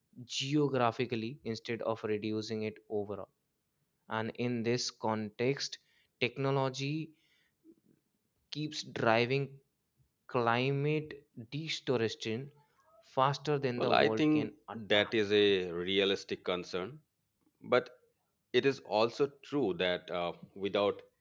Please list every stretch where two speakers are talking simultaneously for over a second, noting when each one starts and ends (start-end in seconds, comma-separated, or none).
13.8-15.1